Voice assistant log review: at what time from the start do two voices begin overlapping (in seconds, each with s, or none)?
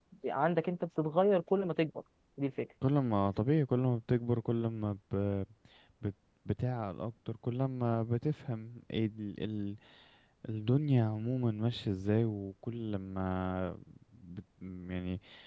none